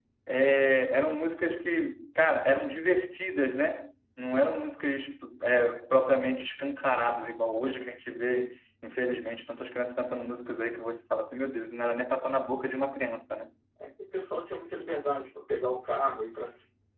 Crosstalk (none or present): none